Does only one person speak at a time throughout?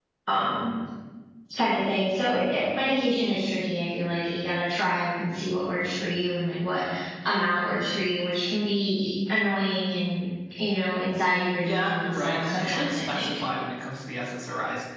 No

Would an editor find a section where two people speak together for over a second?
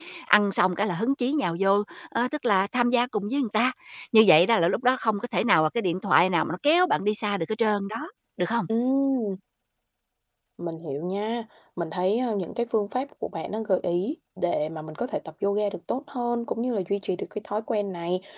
No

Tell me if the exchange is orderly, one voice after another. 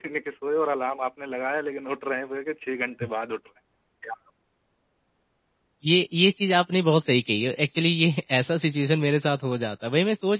Yes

